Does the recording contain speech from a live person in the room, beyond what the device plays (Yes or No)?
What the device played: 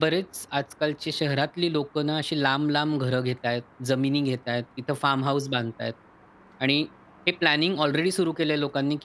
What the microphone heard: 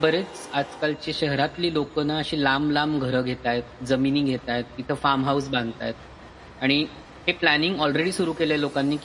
No